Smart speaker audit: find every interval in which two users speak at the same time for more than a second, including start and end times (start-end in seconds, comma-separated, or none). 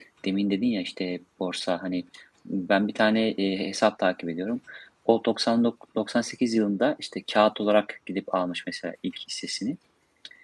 none